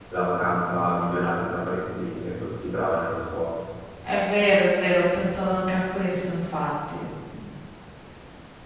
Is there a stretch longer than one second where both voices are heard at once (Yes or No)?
No